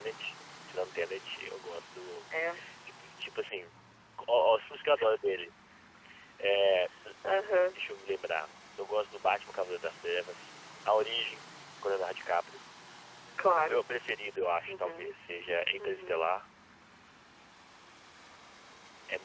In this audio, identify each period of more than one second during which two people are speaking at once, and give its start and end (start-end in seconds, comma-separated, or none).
none